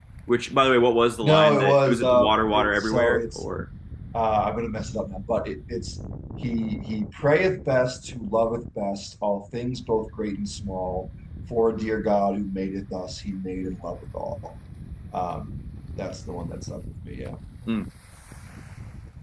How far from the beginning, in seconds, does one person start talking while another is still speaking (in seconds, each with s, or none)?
1.2 s